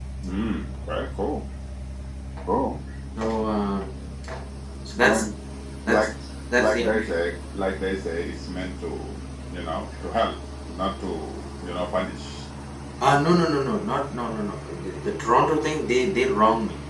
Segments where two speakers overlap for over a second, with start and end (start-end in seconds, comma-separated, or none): none